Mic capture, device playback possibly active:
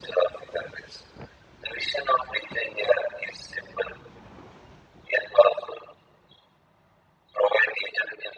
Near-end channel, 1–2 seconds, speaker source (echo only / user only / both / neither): echo only